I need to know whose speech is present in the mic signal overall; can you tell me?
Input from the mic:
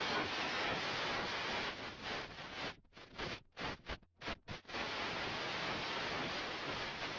neither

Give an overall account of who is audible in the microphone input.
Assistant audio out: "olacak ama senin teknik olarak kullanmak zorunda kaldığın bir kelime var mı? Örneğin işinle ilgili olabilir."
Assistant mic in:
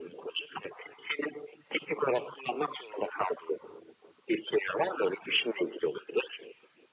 echo only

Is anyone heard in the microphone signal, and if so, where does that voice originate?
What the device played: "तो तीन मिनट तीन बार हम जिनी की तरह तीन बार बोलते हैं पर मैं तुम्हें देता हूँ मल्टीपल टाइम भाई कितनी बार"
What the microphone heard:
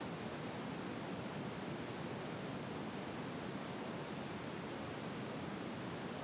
neither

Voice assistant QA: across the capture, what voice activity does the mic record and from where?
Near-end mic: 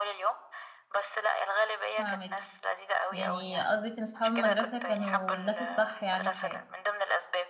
both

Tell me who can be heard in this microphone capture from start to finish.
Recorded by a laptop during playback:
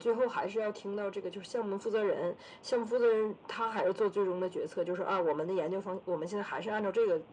echo only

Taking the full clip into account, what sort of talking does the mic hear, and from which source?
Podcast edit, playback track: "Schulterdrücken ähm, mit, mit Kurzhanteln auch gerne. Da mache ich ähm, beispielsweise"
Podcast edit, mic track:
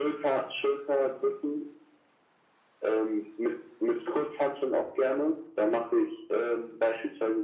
echo only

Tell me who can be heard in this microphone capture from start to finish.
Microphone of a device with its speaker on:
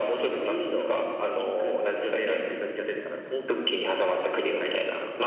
echo only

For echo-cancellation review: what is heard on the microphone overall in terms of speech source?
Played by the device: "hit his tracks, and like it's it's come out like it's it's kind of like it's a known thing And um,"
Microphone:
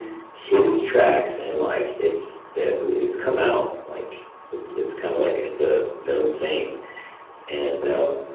echo only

